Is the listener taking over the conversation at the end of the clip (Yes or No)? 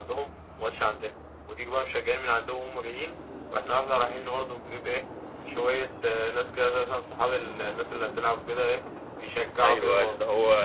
Yes